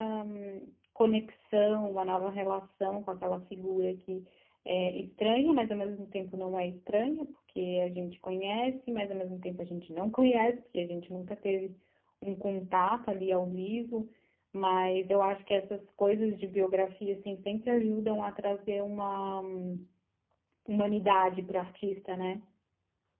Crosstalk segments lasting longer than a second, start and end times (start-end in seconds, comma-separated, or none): none